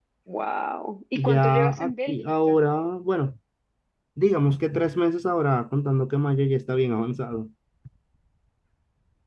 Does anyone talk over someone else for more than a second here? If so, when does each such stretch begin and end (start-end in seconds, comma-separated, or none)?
1.2-2.6